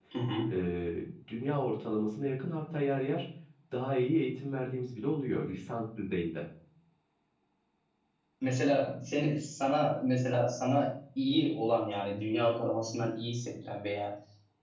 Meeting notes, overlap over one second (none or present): none